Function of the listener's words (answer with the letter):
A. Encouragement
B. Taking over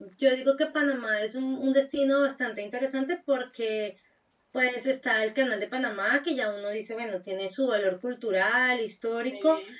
A